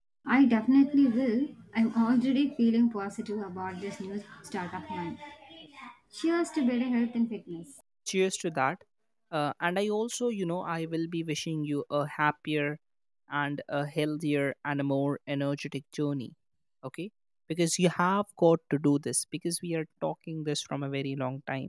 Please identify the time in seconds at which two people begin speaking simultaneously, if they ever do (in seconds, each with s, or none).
none